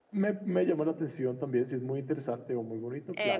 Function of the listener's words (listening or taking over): taking over